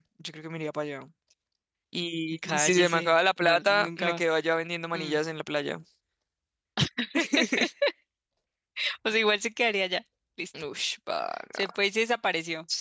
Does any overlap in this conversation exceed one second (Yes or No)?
Yes